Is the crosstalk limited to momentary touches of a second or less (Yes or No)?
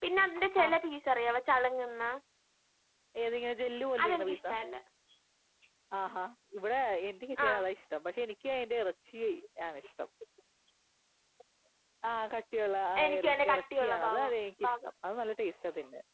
No